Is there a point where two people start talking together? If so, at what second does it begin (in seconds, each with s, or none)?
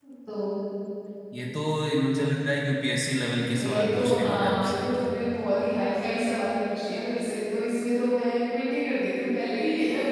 3.4 s